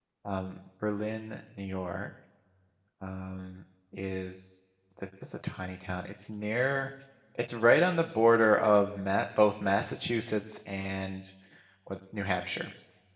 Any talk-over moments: No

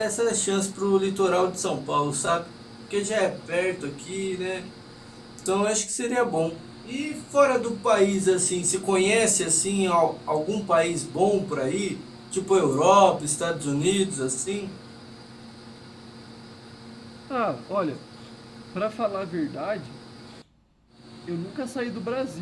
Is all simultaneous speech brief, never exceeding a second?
Yes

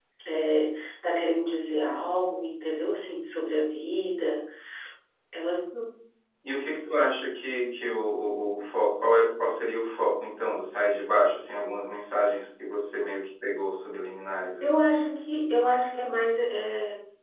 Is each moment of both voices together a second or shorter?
Yes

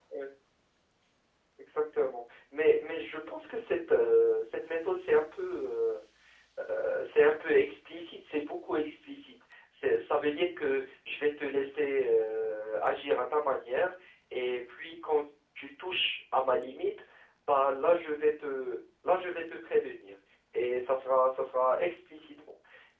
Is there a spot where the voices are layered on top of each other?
No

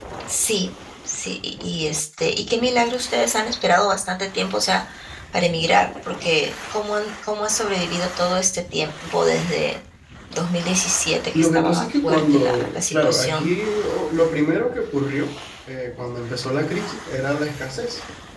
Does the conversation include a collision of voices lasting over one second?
Yes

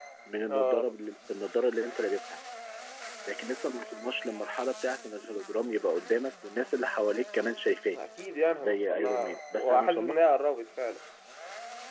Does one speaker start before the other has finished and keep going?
Yes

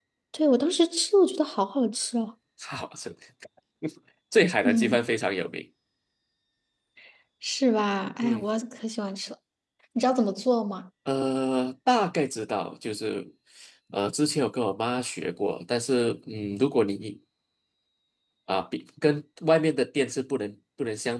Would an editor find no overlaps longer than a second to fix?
Yes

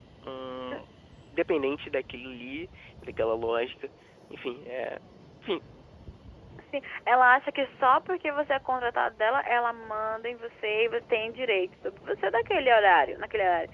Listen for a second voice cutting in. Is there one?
No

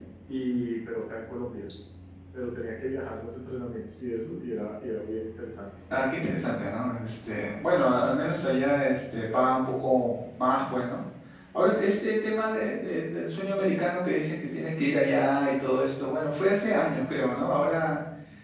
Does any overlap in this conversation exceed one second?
No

